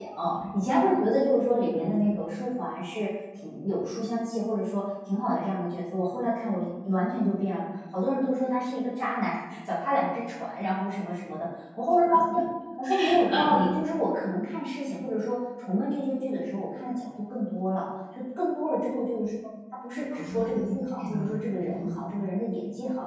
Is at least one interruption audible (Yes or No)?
Yes